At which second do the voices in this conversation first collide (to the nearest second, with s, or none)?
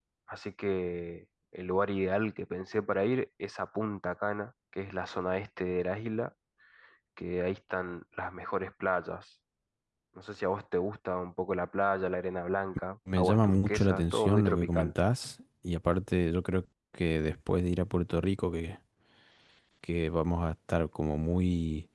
13 s